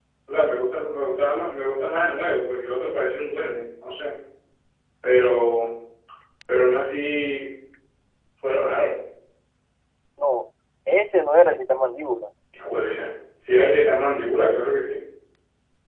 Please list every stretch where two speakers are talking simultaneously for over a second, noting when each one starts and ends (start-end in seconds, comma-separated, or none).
none